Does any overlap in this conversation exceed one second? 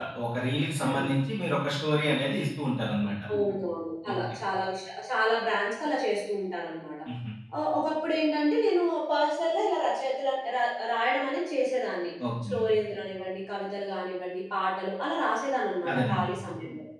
No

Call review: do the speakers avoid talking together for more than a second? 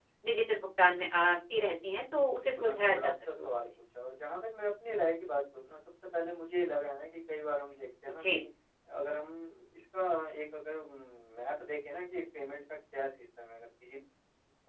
No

